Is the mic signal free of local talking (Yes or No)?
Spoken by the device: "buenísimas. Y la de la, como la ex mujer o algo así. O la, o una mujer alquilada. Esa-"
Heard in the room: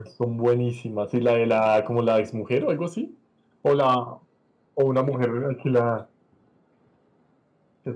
Yes